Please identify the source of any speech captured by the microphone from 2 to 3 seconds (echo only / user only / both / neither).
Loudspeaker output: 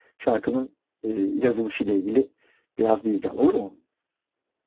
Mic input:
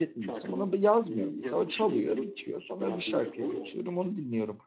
both